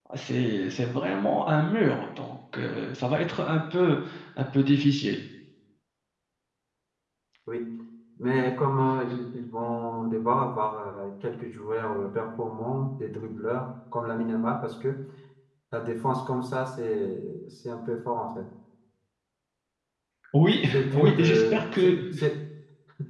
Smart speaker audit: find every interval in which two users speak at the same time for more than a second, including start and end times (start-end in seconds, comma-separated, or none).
20.7-21.9